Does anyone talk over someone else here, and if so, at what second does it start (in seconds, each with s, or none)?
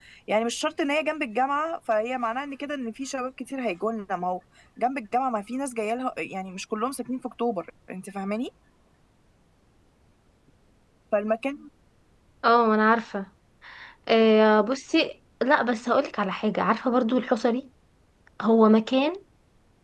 none